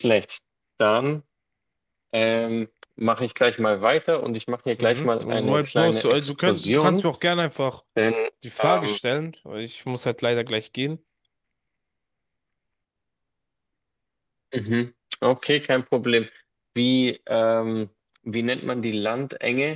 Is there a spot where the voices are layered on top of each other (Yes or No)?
Yes